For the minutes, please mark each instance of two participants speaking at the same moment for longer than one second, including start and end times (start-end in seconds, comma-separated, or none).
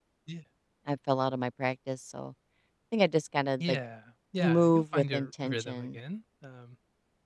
4.4-6.0